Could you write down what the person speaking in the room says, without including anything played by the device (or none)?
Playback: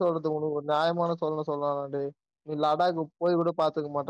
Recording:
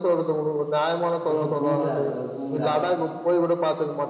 ப்ரோ பூம்ரா ப்ரோ பூம்ரா